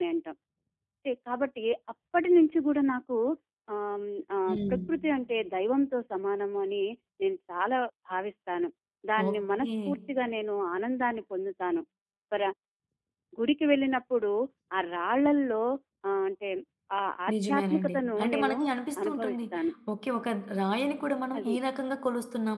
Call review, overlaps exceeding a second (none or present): present